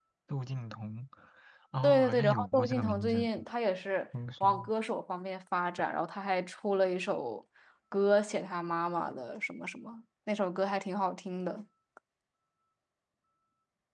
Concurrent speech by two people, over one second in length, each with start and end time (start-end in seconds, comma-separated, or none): 1.8-3.3